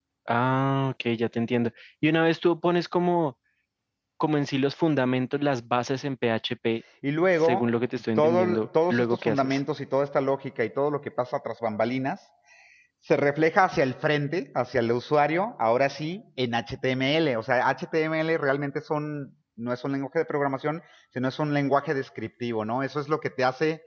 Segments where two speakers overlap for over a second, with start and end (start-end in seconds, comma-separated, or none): 8.2-9.6